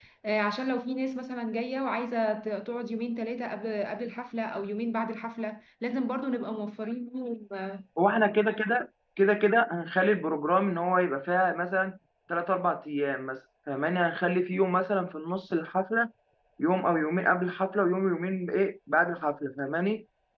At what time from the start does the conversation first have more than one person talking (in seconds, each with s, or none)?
none